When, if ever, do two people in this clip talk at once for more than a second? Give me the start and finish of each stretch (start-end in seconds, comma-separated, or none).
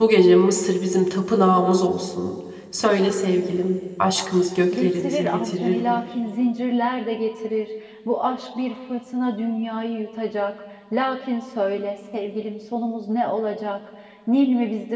4.7-6.0